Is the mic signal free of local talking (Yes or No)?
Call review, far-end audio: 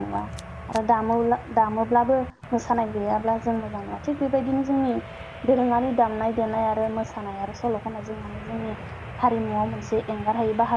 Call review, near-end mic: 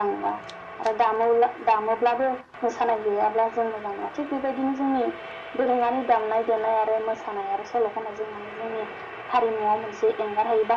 Yes